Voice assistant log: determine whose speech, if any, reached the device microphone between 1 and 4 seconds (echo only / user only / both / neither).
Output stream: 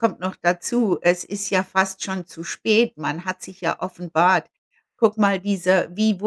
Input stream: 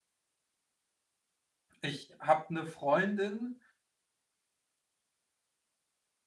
user only